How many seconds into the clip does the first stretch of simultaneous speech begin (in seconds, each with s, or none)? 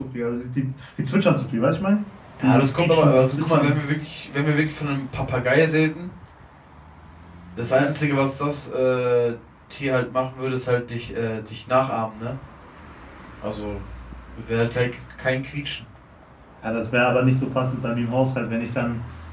2.4 s